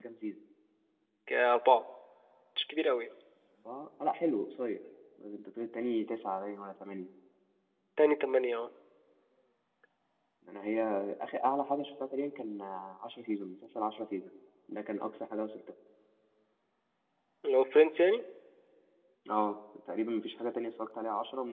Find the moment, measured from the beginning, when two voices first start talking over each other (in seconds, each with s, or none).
none